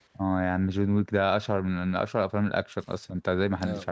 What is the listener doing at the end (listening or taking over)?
taking over